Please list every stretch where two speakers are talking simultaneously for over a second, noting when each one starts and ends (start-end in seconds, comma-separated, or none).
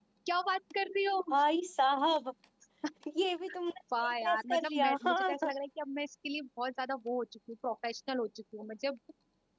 4.0-5.5